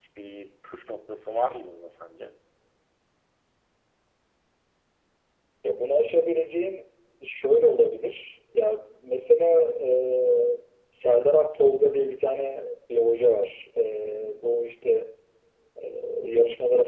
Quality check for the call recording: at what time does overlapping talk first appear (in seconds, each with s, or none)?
none